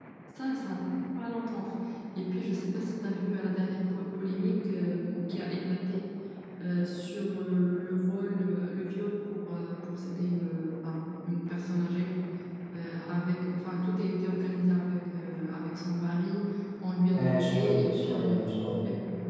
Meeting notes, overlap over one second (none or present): present